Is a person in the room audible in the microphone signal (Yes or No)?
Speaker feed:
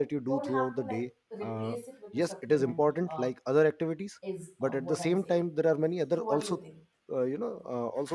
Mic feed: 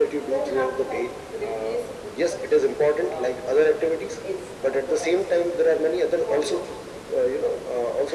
No